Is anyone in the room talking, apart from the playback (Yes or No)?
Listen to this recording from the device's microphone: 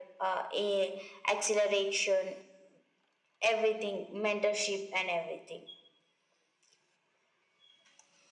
No